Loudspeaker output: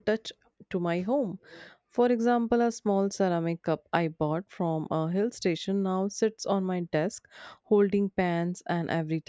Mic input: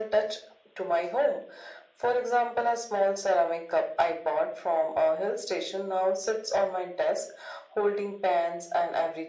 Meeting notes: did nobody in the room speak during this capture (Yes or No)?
Yes